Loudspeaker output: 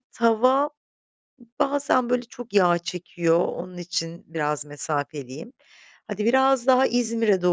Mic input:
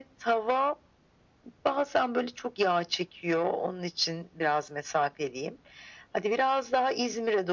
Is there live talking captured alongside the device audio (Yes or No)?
No